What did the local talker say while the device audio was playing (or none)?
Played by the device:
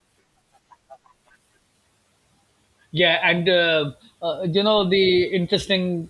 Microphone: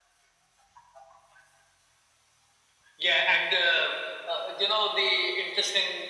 none